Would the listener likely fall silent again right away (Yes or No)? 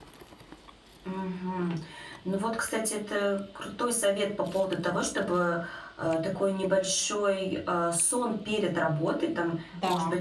Yes